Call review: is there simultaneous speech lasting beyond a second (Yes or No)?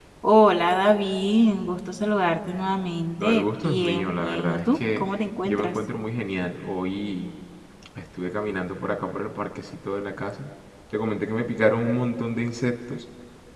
Yes